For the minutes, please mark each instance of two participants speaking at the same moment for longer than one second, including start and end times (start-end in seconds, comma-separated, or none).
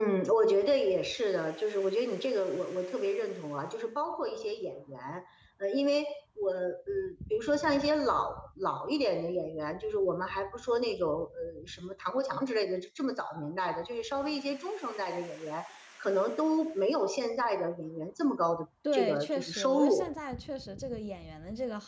18.9-20.1